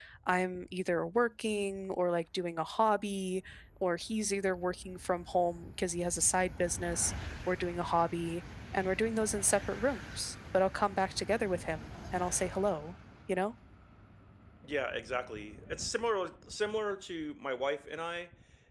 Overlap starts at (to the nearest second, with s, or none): none